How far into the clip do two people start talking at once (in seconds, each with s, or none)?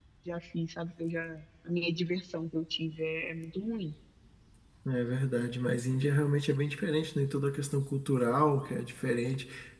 none